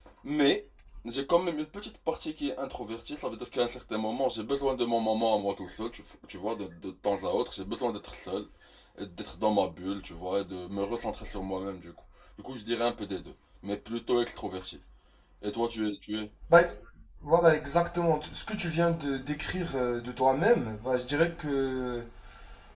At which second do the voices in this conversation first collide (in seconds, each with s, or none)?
none